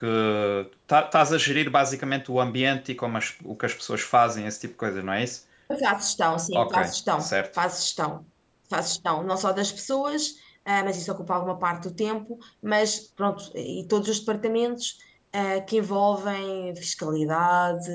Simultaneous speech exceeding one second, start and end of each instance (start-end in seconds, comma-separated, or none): none